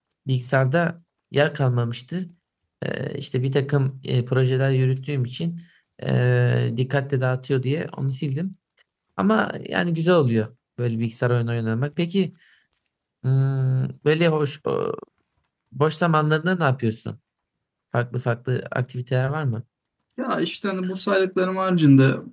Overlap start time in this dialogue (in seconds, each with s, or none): none